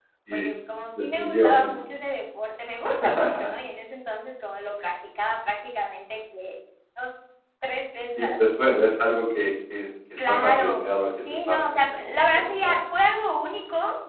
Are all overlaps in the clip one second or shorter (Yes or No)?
No